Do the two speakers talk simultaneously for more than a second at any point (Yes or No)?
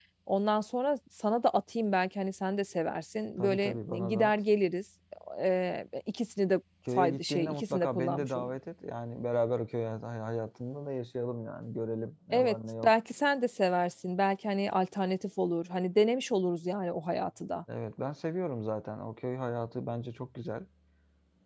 Yes